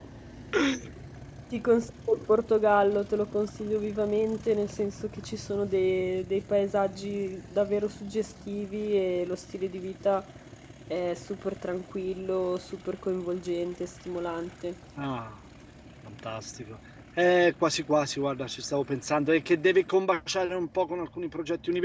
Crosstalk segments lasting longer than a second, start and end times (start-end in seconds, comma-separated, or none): none